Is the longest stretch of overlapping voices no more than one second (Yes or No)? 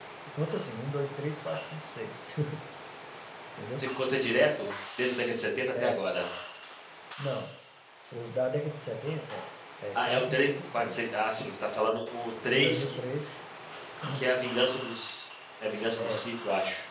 No